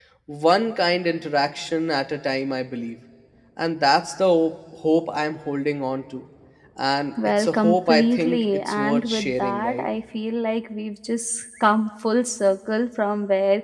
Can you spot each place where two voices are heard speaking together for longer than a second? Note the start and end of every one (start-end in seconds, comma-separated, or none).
7.4-9.9